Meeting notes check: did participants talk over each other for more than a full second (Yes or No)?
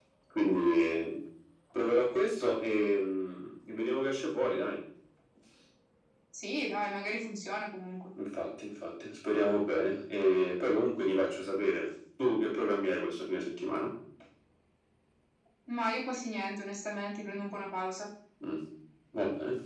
No